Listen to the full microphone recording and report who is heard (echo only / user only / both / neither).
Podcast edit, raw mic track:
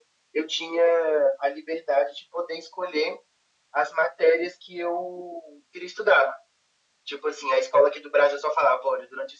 echo only